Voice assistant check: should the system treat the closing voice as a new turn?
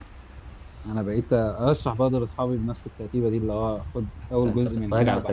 Yes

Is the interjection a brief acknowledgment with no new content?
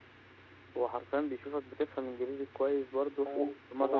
No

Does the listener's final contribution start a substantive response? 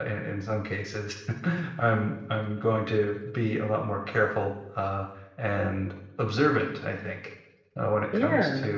No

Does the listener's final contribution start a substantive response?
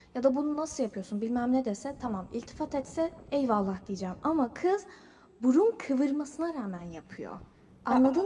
No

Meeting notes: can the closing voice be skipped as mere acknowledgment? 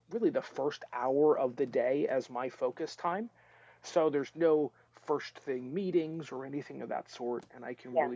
Yes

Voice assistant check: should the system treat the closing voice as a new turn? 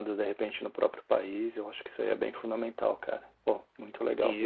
Yes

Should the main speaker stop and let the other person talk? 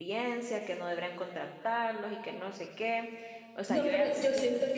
Yes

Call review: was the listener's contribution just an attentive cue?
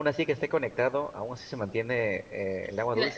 No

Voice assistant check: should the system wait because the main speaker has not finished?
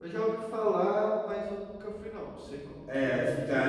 No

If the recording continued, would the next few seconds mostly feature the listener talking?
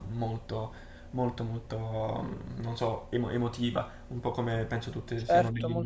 Yes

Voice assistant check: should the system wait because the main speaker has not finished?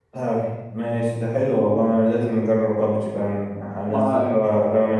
Yes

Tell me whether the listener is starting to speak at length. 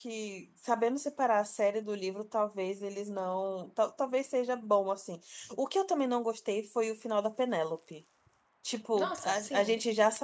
No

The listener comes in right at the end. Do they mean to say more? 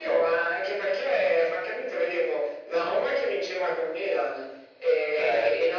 No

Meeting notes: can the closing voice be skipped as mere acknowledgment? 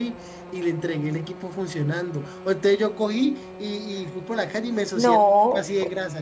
Yes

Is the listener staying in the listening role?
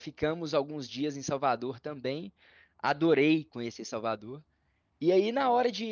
Yes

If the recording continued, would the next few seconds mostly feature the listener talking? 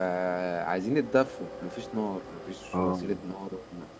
No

